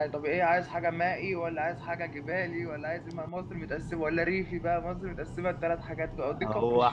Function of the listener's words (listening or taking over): taking over